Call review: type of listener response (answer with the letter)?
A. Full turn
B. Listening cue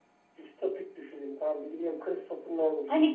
A